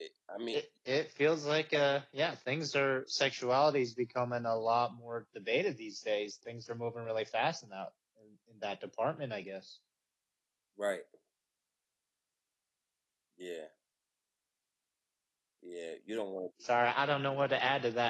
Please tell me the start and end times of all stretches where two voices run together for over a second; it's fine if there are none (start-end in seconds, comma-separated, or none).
none